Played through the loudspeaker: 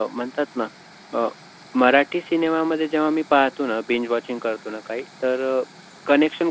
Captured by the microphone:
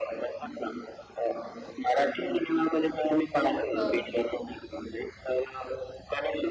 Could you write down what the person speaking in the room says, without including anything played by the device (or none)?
हो.